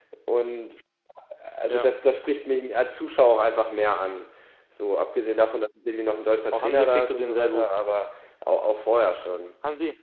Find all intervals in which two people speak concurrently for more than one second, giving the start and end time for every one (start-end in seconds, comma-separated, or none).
6.5-7.7